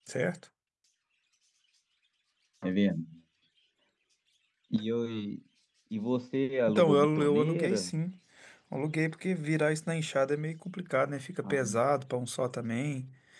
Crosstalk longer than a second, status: present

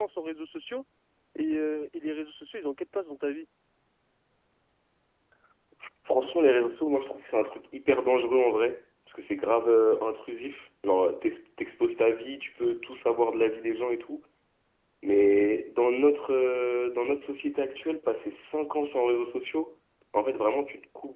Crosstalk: none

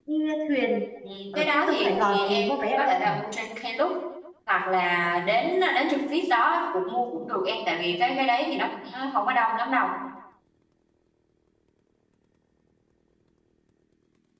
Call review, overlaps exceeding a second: present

